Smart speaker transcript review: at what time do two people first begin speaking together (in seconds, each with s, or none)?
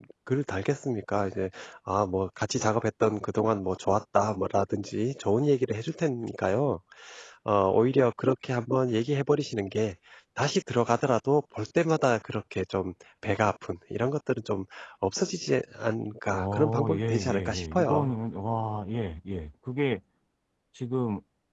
16.3 s